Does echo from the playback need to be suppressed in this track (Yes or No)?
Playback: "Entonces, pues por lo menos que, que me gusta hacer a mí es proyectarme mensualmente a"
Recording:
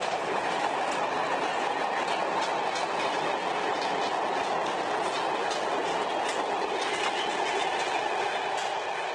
No